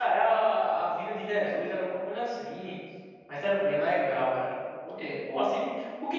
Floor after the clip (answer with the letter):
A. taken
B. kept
B